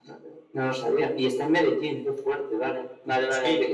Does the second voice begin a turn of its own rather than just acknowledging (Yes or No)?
No